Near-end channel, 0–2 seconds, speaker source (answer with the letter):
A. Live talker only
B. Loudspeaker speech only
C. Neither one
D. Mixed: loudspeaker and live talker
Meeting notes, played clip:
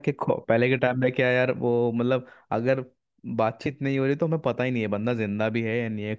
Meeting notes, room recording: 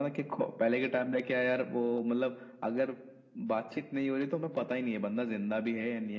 B